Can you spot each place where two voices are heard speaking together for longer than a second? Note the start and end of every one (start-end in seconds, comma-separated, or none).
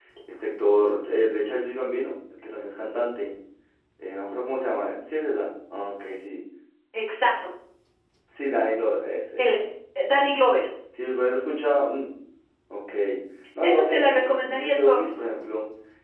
13.6-15.1